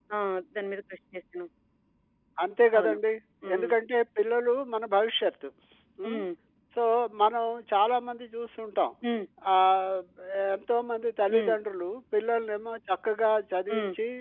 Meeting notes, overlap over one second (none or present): none